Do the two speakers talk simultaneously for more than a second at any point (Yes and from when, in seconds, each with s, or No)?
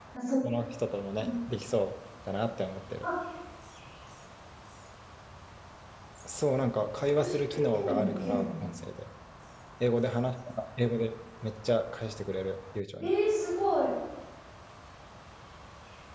Yes, from 7.0 s